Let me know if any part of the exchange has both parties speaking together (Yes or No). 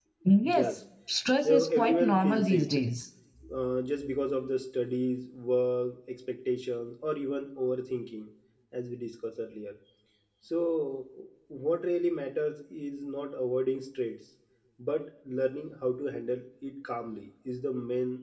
Yes